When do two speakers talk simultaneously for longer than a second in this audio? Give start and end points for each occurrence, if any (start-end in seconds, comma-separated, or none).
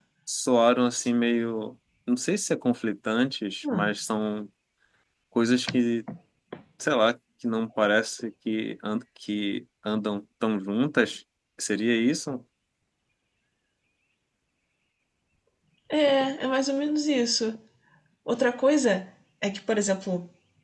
none